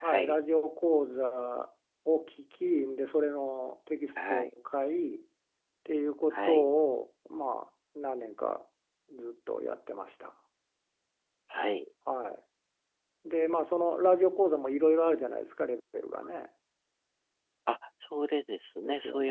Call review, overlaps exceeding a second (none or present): none